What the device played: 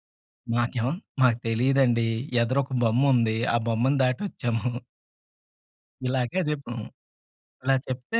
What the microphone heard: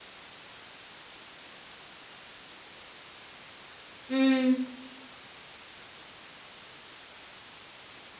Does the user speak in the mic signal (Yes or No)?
Yes